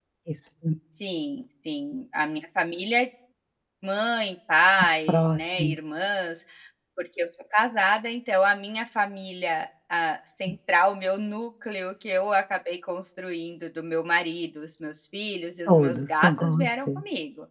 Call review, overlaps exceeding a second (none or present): present